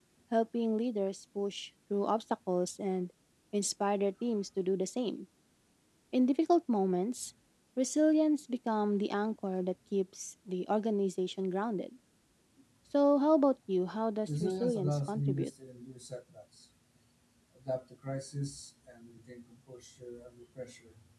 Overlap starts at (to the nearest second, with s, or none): 14 s